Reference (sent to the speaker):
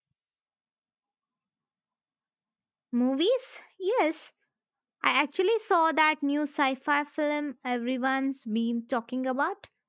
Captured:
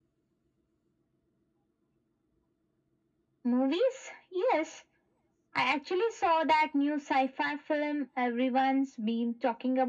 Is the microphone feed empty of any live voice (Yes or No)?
Yes